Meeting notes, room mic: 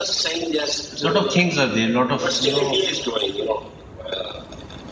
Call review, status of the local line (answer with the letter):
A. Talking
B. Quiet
A